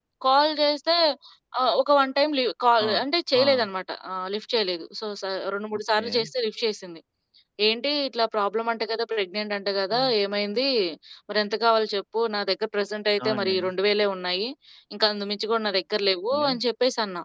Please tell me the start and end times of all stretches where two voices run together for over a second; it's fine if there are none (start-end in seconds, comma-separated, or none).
none